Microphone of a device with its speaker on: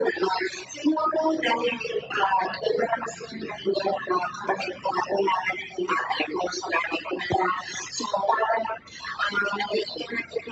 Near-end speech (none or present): none